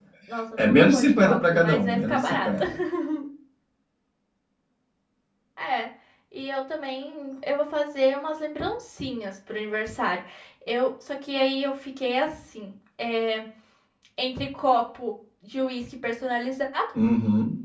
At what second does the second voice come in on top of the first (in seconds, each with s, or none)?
0.5 s